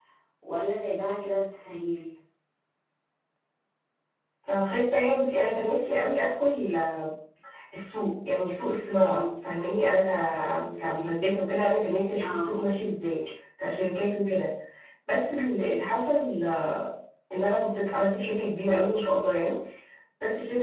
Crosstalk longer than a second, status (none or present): none